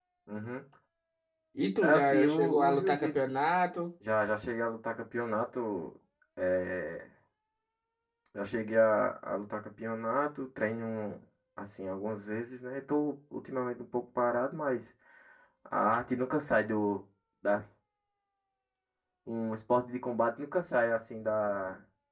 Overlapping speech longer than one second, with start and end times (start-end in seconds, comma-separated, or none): 1.8-3.3